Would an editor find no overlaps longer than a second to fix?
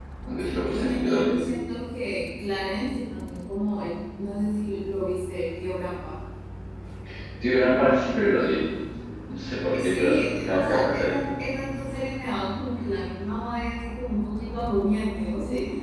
No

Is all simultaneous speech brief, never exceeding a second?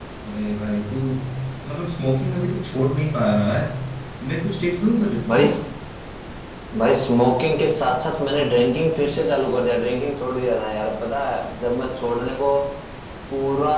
Yes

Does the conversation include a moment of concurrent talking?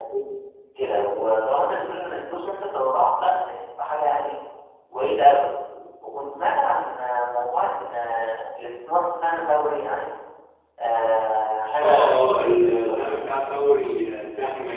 Yes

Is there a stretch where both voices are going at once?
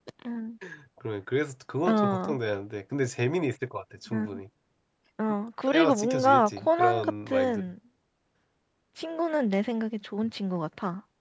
Yes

